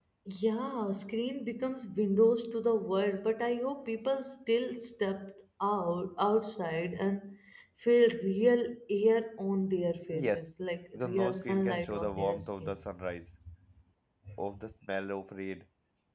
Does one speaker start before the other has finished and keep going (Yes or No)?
Yes